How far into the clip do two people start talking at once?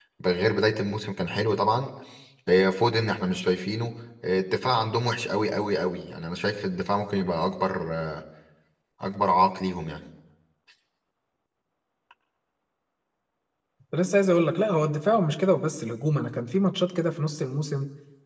none

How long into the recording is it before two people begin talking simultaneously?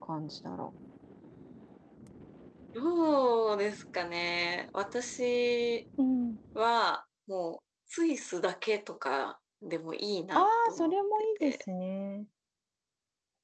10.3 s

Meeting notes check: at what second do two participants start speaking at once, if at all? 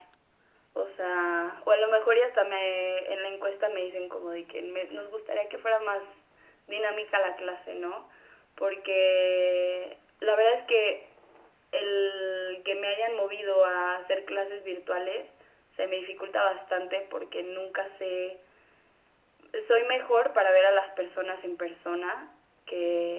none

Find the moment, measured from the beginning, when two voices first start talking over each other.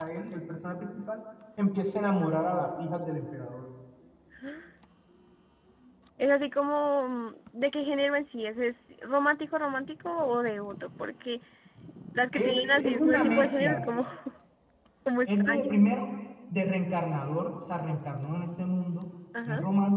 12.3 s

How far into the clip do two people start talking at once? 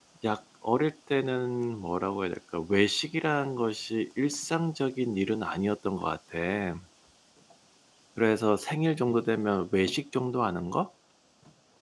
none

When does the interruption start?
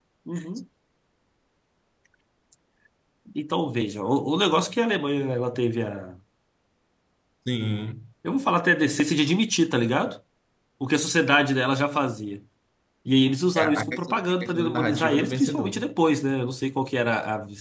13.6 s

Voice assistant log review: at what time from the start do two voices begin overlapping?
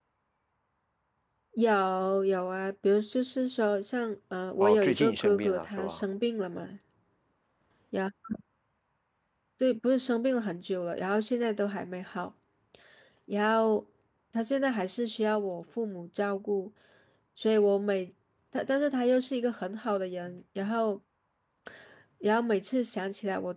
4.6 s

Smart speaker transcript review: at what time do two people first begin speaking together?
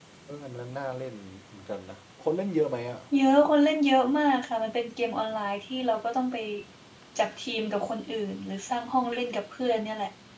none

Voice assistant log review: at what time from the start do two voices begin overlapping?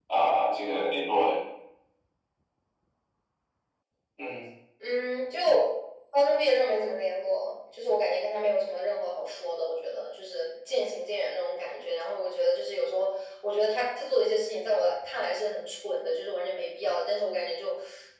none

